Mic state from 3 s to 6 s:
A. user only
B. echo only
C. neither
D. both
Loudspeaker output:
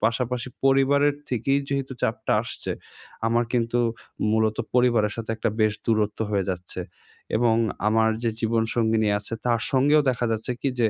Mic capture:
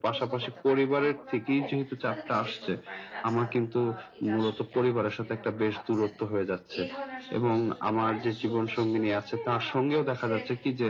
D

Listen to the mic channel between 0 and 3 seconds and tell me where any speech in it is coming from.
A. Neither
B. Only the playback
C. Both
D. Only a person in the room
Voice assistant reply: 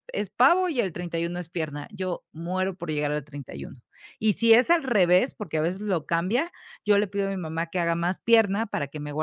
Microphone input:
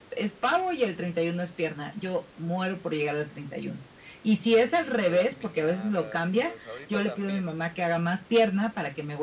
B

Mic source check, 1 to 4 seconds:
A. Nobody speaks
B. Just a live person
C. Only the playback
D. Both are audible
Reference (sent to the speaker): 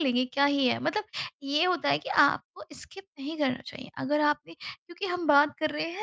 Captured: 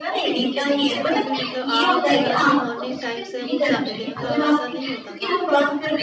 D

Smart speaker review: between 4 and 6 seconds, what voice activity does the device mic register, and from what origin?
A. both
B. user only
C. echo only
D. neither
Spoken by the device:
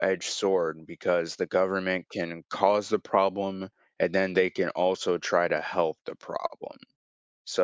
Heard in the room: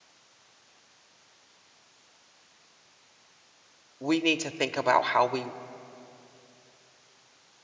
B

